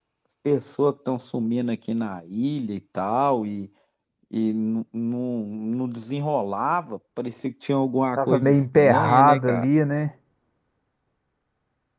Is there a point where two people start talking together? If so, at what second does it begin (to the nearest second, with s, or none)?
8 s